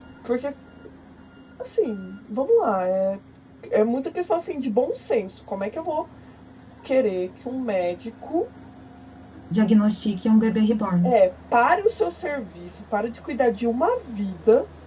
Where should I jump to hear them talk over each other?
none

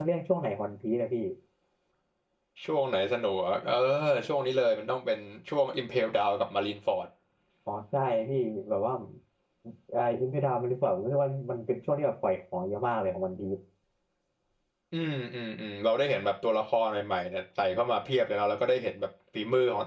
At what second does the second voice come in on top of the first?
none

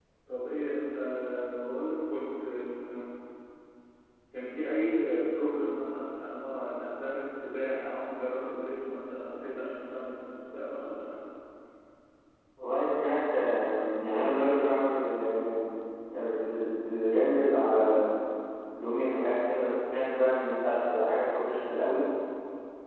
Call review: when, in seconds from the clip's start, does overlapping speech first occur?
none

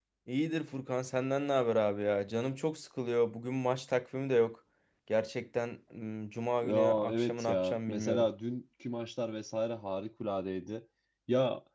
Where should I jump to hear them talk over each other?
6.6 s

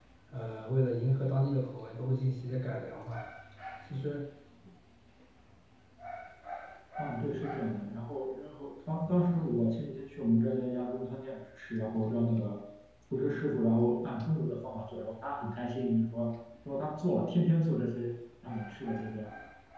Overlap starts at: none

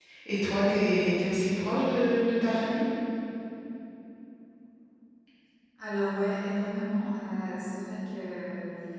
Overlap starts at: none

